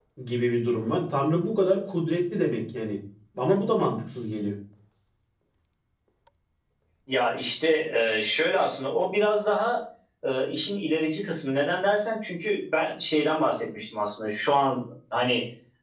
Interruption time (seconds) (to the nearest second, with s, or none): none